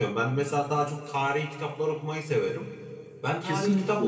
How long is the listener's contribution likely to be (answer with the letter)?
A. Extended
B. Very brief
B